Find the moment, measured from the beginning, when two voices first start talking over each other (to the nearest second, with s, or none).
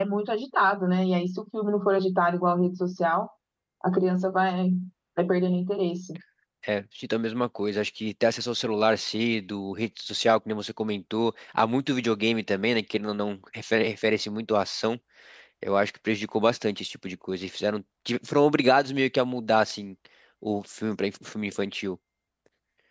none